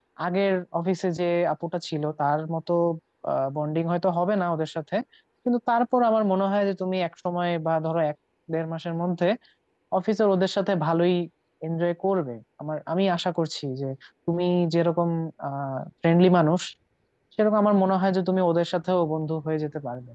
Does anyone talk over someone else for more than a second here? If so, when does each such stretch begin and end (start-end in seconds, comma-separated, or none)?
none